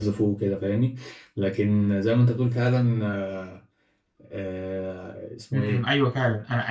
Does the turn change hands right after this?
Yes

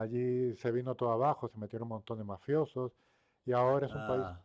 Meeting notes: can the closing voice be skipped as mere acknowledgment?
Yes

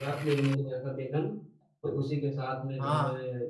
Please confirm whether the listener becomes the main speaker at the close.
No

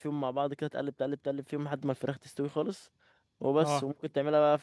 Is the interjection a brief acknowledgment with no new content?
Yes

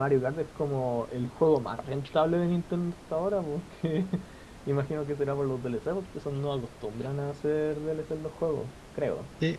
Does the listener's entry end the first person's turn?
Yes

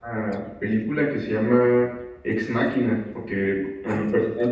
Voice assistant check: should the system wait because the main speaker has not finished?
Yes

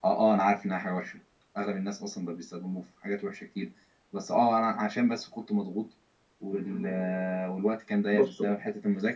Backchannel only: Yes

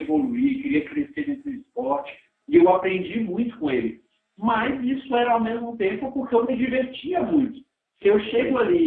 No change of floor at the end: Yes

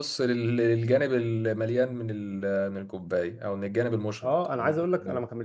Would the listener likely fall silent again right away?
No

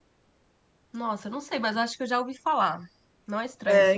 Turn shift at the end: Yes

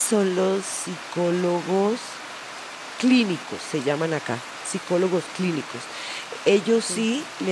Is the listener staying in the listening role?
Yes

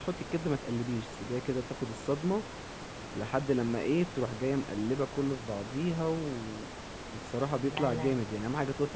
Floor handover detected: No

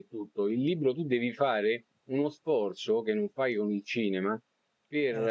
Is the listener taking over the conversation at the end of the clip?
No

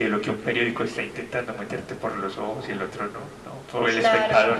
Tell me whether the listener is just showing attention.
No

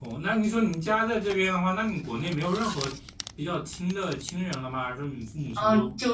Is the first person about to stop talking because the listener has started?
Yes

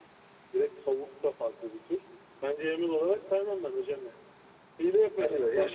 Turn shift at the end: Yes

